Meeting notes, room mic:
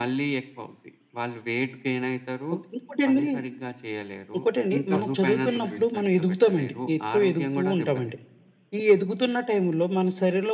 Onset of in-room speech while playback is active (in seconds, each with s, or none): 4.8 s